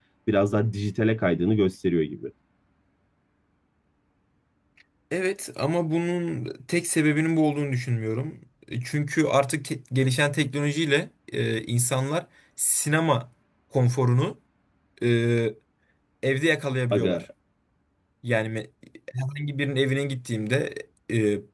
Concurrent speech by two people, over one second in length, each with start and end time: none

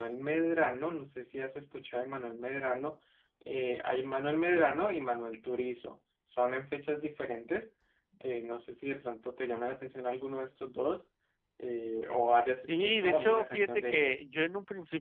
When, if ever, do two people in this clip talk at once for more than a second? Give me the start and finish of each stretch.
12.7-14.2

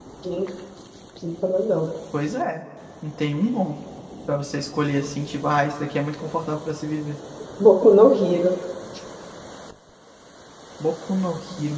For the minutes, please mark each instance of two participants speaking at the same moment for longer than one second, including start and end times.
none

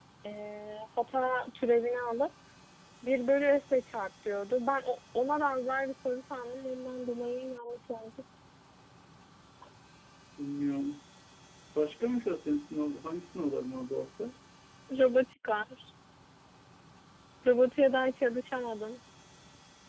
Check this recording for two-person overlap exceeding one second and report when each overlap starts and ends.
none

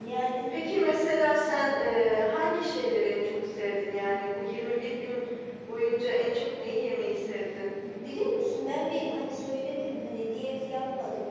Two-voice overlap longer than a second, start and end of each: none

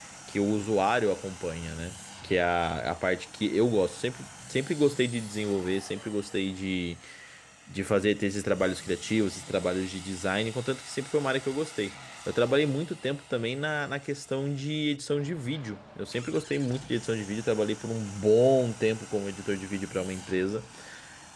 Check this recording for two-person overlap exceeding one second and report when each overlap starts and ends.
none

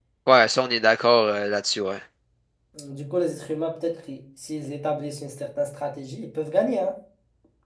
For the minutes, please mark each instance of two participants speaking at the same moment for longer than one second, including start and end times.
none

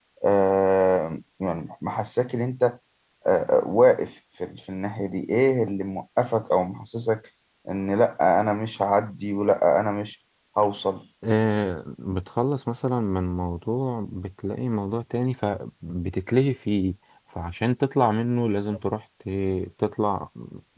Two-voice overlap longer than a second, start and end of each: none

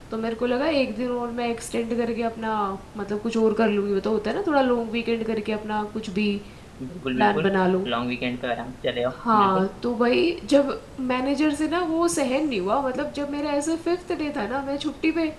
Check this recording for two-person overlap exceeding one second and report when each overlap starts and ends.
none

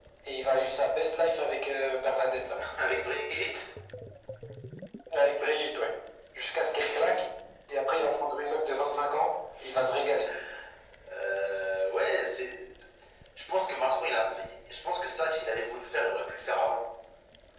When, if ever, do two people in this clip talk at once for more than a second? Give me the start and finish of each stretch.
none

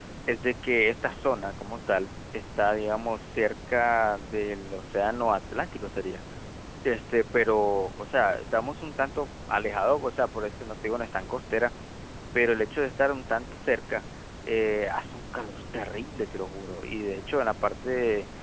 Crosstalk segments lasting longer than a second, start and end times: none

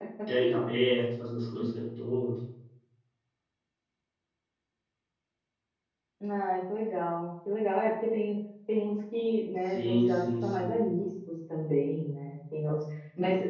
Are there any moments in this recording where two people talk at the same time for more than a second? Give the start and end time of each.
9.6-10.8

